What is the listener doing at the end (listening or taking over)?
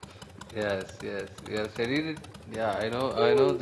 listening